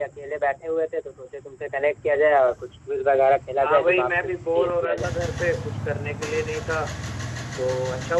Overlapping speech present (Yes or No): Yes